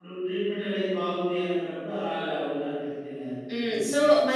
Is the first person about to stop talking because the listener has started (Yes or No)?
Yes